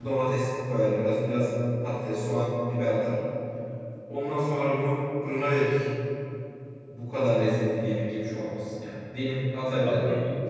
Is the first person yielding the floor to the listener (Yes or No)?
No